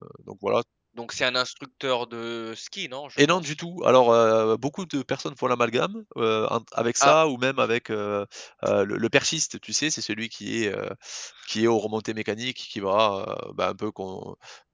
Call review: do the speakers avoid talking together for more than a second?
Yes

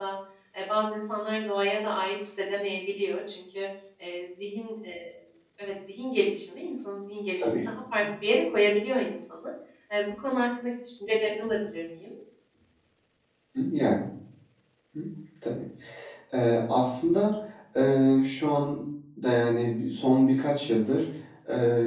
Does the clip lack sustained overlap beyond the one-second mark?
Yes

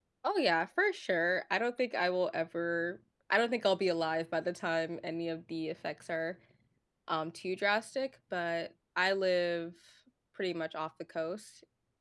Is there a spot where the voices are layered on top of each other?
No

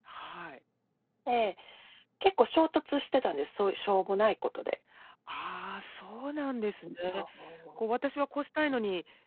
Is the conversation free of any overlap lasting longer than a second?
Yes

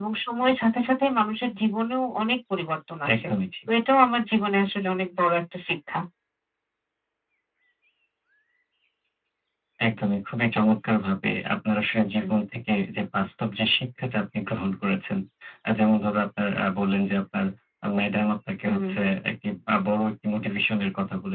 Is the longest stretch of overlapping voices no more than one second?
Yes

